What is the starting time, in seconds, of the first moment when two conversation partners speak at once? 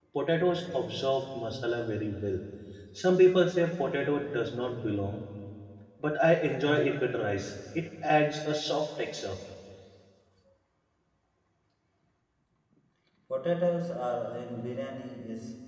none

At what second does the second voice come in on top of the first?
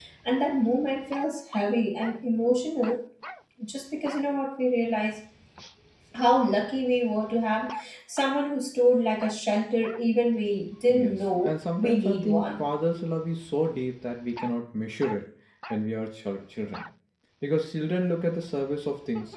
10.9 s

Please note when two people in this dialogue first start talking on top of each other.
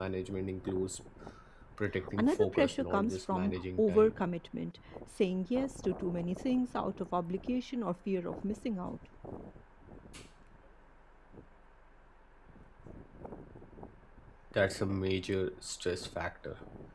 2.2 s

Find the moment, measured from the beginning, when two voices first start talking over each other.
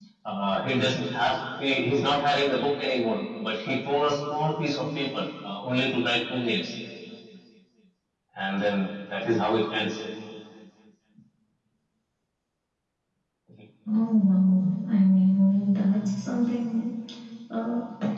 none

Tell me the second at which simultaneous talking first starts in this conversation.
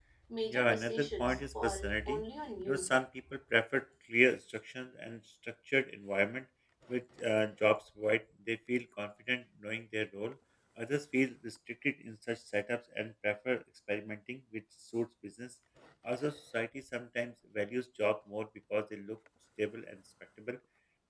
0.5 s

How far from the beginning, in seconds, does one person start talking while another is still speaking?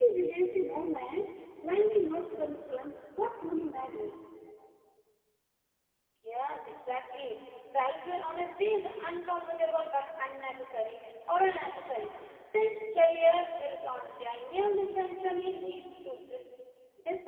none

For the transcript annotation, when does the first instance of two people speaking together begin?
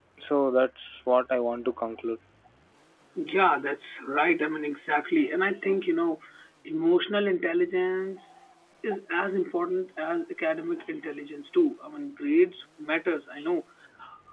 none

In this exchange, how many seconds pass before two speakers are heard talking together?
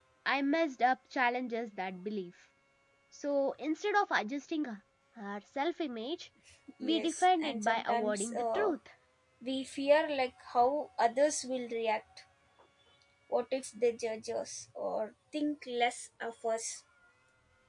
6.8 s

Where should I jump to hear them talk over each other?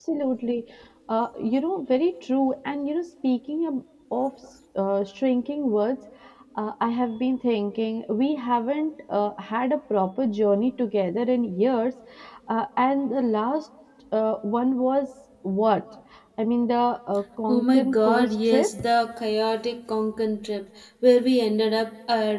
17.5 s

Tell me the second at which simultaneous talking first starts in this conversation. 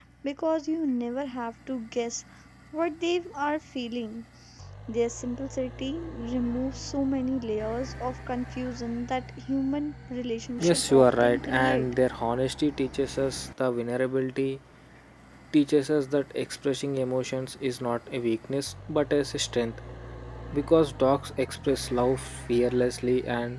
10.6 s

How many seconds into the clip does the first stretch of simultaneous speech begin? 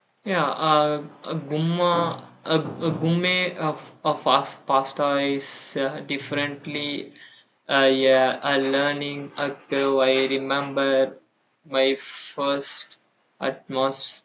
none

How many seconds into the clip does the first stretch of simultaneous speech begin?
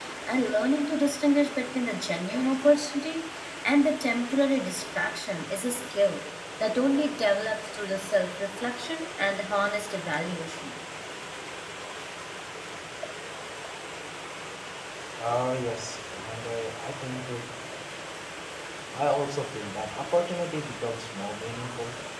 none

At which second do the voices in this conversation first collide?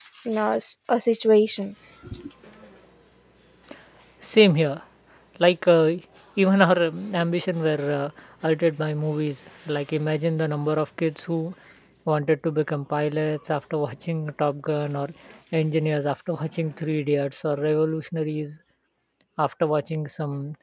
none

